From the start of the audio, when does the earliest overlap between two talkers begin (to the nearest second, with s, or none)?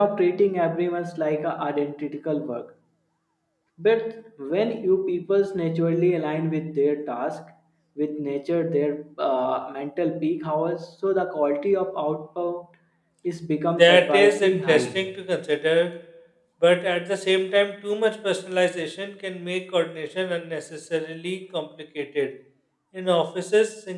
14 s